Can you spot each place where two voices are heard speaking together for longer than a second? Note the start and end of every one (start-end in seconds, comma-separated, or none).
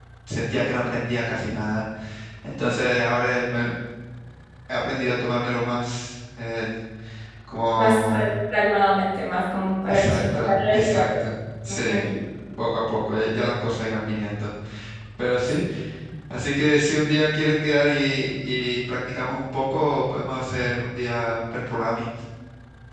9.9-11.2